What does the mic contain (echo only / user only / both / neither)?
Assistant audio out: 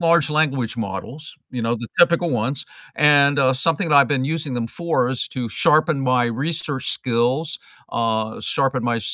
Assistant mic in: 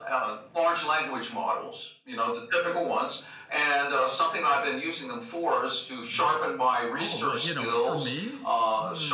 both